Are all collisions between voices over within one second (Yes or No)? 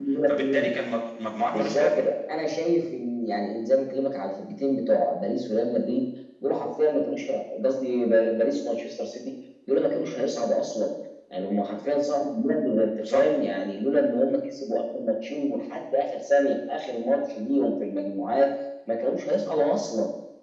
Yes